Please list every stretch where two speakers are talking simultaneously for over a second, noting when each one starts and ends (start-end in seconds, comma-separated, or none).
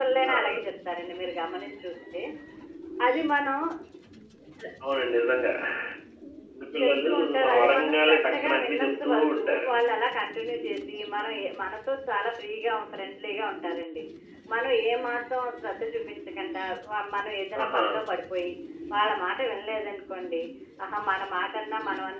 6.8-9.7